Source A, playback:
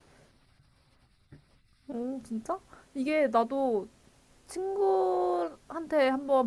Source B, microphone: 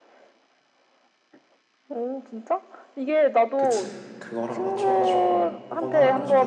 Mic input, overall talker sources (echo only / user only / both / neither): both